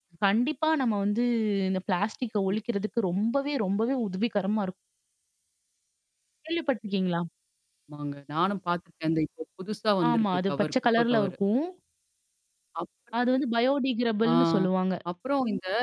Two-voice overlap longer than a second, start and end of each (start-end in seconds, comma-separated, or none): 10.1-11.3